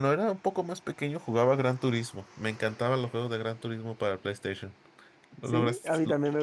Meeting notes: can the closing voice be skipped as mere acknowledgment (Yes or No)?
No